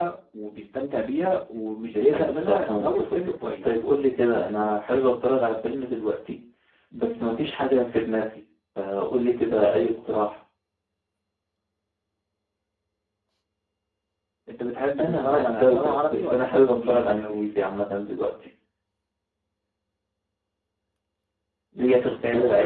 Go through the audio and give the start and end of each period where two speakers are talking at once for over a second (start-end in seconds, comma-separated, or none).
1.8-3.8, 15.0-17.5